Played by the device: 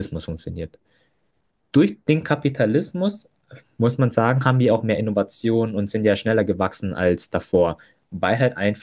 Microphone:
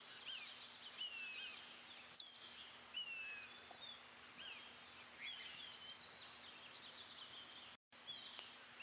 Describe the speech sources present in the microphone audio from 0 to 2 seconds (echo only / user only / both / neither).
neither